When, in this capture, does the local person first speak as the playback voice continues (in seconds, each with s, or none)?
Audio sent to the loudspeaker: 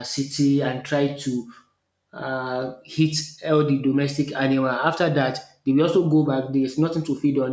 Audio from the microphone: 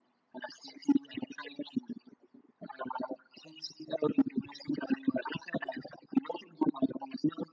none